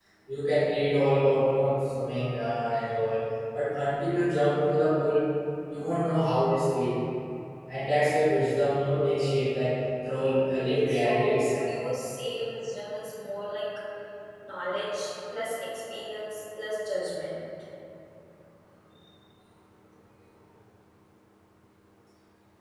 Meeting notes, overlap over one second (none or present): present